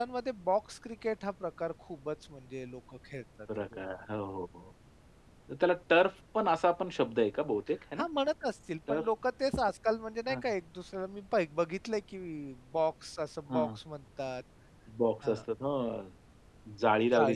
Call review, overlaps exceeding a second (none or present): none